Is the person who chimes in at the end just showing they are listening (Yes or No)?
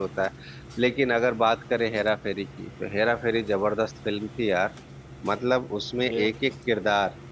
Yes